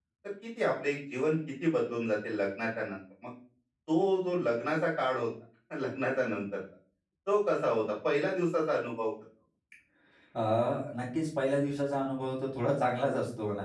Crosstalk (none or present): none